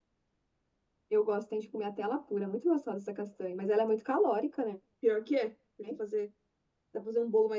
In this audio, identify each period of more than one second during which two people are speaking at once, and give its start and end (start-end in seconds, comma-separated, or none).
none